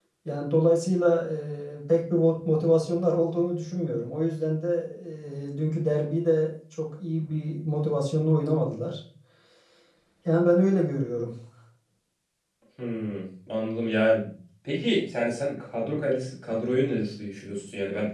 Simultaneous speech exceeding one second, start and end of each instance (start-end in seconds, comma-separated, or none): none